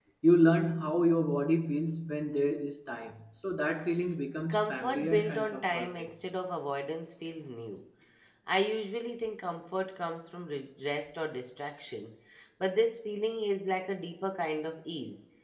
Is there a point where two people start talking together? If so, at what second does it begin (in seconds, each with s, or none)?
4.5 s